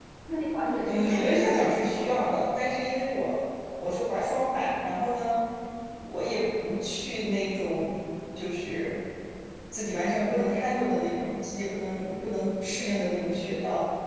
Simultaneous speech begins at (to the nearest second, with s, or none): 1 s